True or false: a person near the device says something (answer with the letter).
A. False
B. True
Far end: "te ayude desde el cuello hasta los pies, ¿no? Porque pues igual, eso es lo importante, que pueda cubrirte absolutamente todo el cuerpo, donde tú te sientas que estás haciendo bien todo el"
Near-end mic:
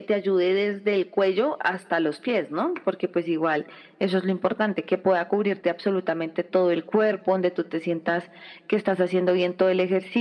A